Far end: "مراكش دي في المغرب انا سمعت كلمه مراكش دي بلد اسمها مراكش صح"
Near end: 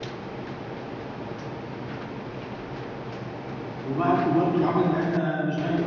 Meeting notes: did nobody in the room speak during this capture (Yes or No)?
No